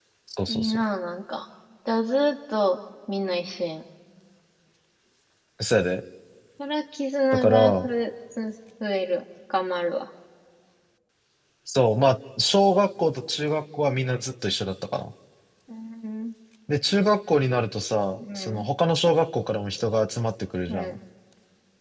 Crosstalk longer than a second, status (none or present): none